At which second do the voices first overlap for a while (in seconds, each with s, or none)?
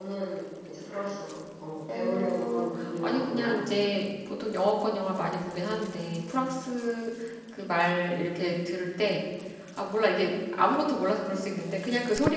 1.9 s